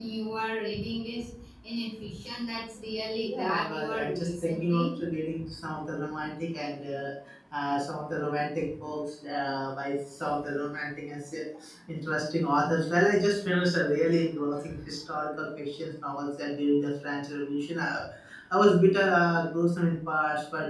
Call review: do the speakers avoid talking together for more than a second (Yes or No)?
No